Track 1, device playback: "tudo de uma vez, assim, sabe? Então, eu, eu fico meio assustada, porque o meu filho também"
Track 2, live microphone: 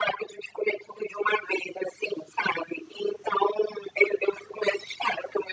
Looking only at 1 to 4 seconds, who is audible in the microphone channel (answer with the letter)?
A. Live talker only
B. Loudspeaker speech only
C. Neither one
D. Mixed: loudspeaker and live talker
B